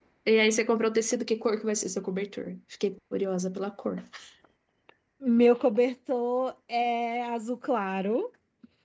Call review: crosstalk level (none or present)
none